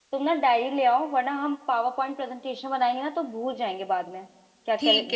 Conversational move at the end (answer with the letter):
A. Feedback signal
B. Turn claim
B